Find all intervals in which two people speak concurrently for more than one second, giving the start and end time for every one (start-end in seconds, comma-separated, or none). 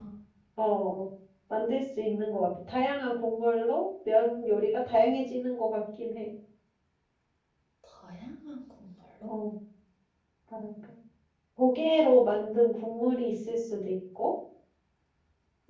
none